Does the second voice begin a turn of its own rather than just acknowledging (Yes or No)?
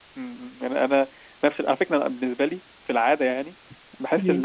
No